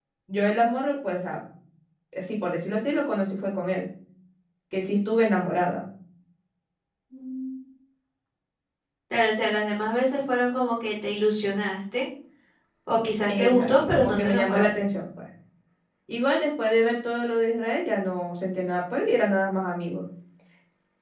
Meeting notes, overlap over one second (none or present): present